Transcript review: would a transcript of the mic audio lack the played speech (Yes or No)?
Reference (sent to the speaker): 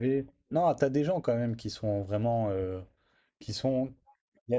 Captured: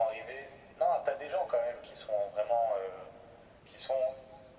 No